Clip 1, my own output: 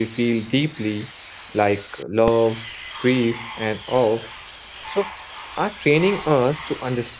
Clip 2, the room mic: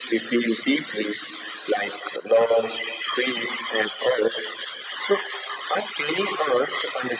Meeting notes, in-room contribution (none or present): none